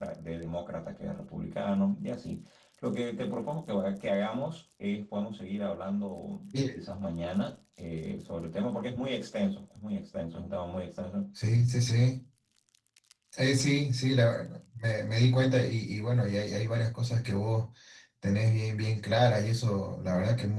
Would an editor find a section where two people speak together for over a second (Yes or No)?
No